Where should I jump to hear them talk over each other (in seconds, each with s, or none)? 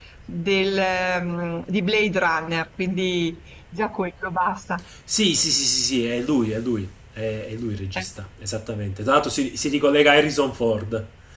none